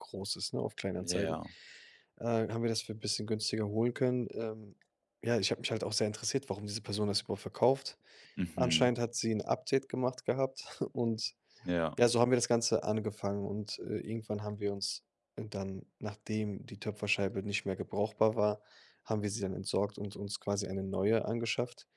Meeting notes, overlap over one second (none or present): none